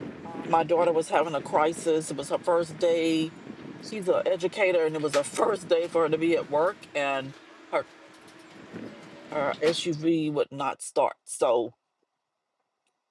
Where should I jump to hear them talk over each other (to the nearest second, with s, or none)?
none